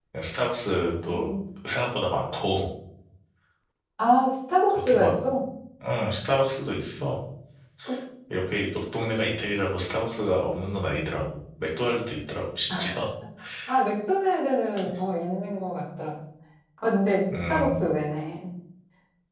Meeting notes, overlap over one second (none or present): none